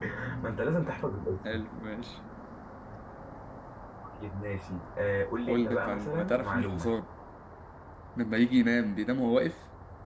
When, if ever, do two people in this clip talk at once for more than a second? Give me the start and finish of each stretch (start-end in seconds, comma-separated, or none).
5.5-6.9